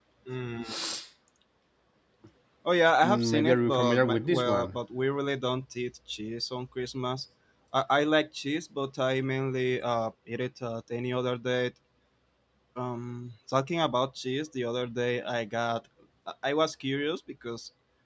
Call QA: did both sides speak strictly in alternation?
No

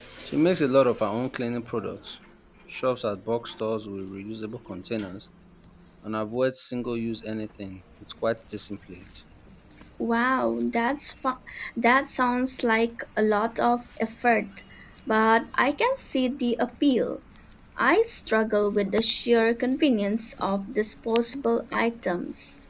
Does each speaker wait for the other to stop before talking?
Yes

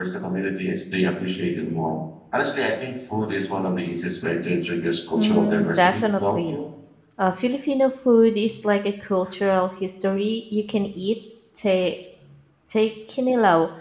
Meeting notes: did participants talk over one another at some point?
Yes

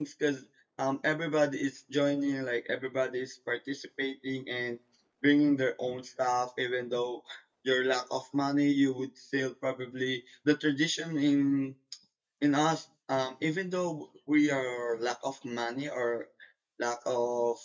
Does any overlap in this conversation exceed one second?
No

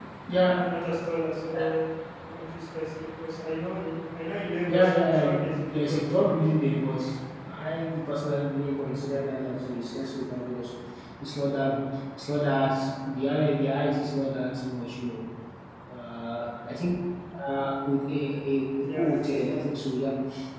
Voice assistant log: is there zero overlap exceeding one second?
No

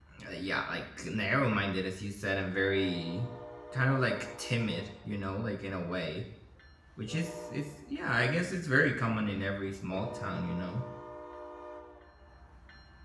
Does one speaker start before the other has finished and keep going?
No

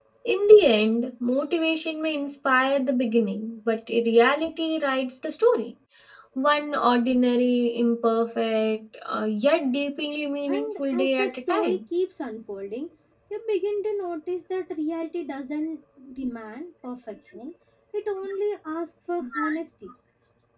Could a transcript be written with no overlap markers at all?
No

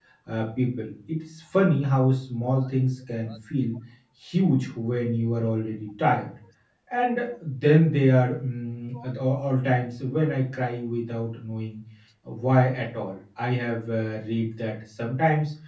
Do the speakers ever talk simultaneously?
No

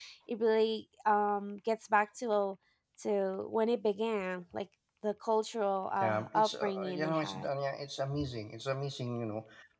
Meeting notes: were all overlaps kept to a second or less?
No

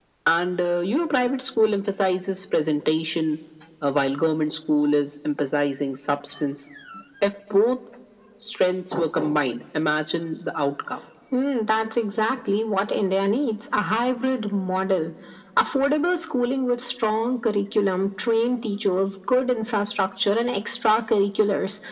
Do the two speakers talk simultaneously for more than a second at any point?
No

